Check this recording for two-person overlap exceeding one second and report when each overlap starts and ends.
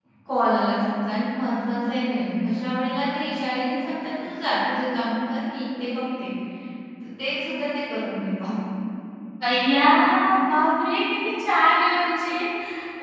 none

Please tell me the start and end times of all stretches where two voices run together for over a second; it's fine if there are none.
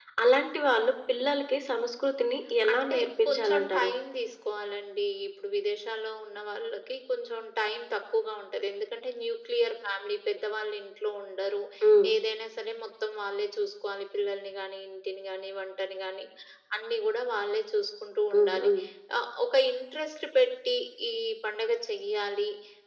2.7-3.9

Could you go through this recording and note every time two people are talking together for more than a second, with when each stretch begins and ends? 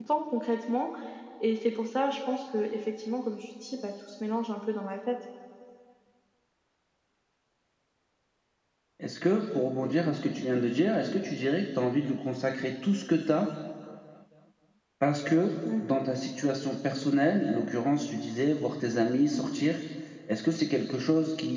none

